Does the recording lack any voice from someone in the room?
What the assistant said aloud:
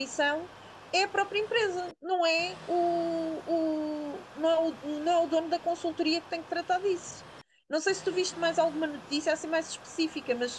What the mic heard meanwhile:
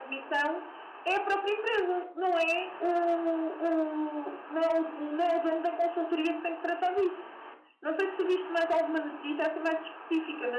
Yes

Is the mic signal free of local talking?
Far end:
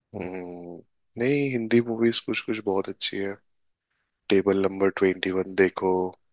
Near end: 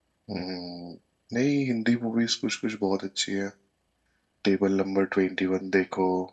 Yes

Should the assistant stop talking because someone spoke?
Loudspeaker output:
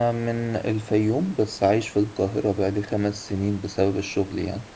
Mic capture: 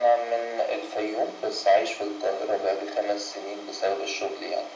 No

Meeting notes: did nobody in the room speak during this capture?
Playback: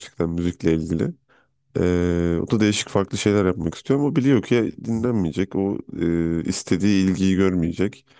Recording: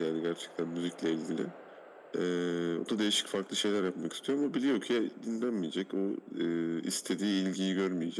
Yes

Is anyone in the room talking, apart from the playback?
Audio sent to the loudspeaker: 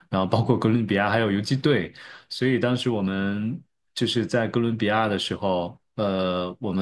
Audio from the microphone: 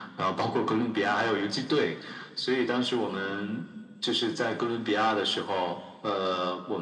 No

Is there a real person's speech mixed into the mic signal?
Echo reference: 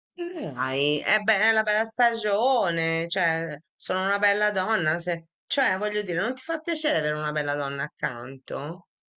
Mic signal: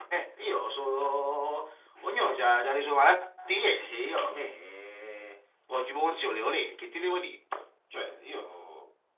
Yes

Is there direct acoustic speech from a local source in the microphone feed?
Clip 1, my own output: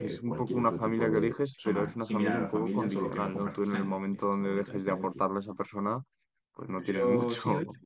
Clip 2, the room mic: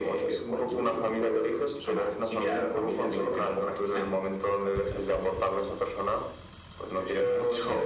No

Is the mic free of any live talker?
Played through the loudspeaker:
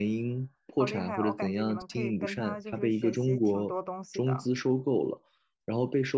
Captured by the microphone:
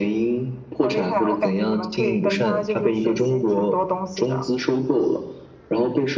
Yes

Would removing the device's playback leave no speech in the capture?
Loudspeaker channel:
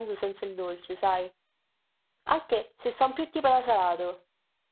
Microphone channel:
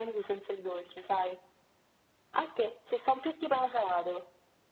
Yes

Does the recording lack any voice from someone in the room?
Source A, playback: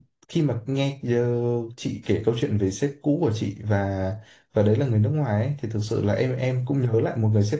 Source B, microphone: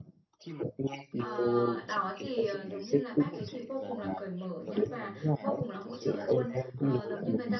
No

